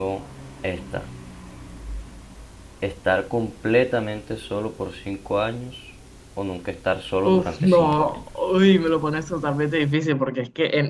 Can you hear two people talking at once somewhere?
Yes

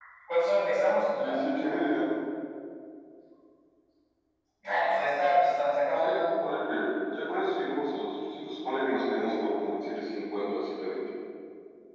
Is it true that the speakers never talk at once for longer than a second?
Yes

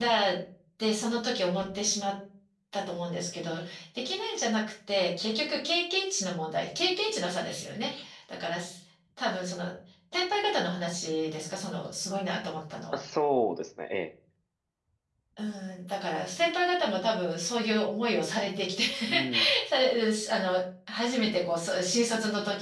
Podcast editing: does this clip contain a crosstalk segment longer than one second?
No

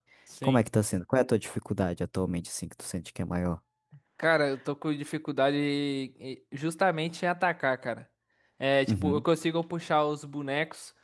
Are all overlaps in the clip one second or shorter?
Yes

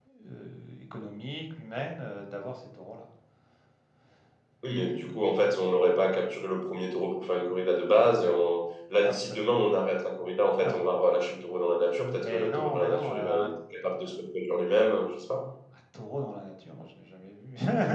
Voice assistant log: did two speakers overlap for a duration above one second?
Yes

